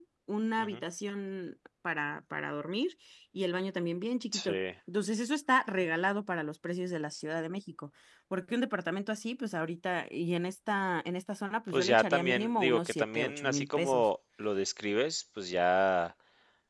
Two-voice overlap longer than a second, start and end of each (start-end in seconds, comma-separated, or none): 11.7-14.0